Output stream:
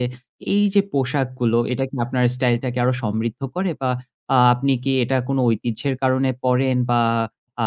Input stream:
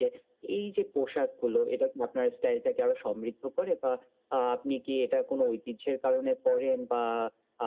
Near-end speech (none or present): none